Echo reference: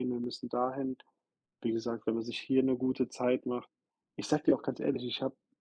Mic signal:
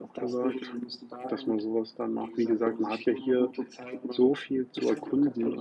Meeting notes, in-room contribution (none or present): present